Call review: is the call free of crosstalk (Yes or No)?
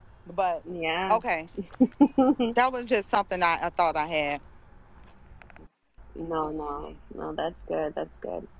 Yes